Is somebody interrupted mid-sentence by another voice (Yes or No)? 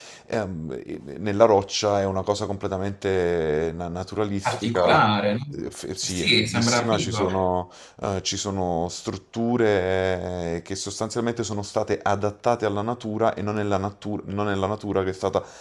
Yes